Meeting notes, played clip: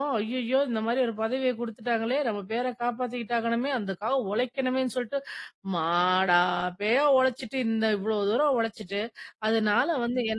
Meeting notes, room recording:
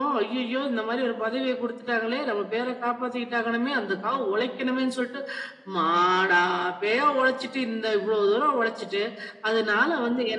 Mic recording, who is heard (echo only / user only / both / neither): echo only